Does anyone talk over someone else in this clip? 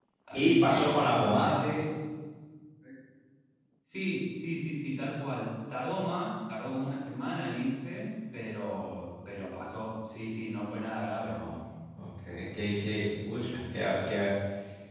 Yes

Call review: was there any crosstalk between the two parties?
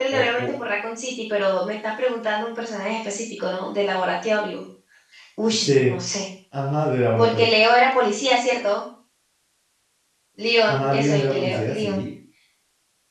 Yes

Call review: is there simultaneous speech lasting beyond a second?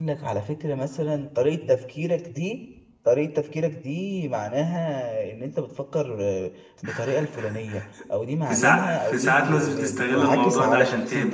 Yes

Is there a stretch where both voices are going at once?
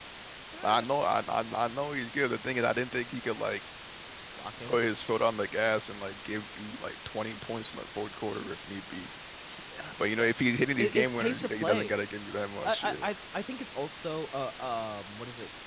Yes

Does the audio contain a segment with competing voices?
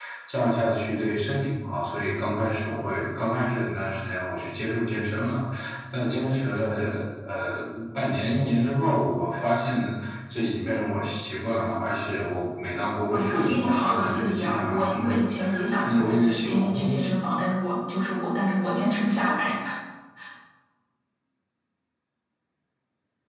Yes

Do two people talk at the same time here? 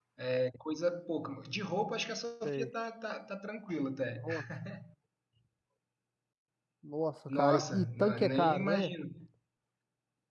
Yes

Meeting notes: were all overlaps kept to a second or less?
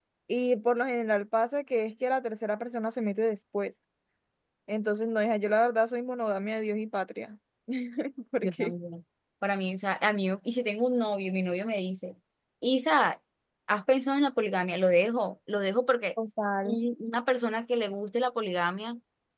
Yes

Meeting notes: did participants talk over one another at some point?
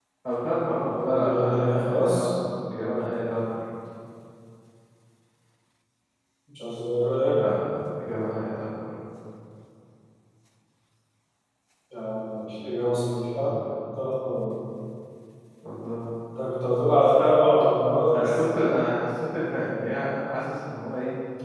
Yes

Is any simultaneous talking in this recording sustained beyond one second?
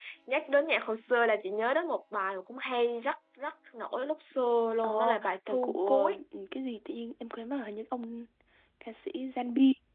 Yes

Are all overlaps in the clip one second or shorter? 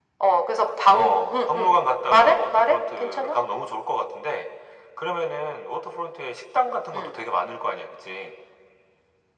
No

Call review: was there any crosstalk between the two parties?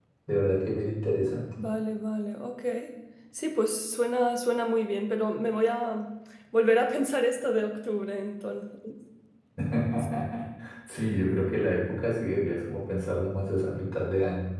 No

